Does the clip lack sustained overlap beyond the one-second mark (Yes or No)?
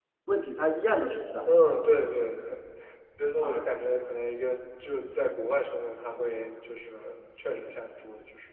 Yes